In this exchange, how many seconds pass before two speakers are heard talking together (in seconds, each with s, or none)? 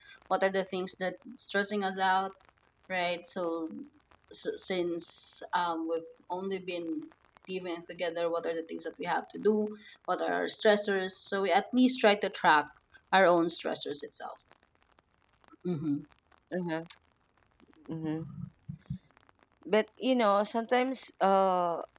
none